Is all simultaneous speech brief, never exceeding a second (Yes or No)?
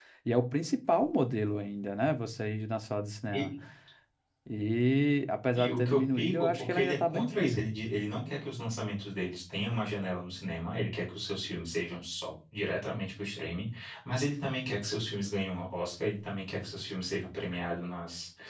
No